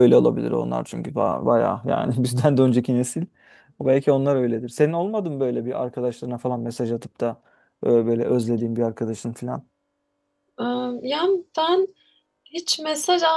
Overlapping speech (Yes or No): No